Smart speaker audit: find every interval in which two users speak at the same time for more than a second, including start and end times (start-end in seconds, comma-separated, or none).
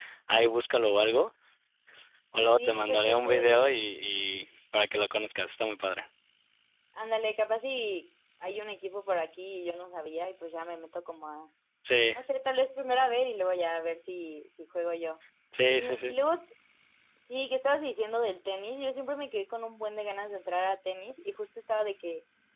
2.5-3.8